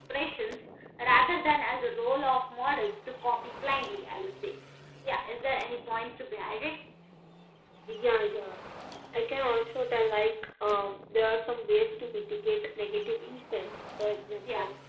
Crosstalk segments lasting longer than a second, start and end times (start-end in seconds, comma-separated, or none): none